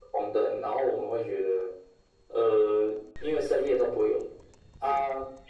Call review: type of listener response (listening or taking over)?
listening